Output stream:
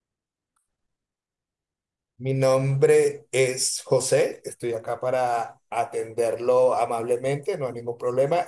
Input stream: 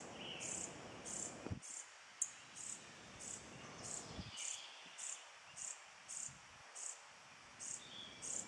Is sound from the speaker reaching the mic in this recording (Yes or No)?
No